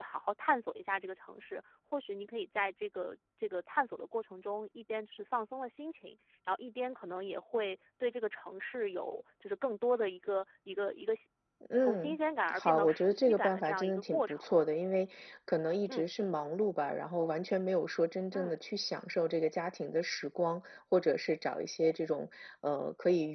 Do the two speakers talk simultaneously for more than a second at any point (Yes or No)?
Yes